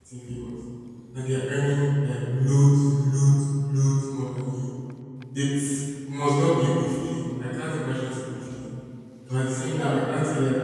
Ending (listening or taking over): listening